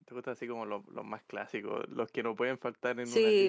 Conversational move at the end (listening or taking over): taking over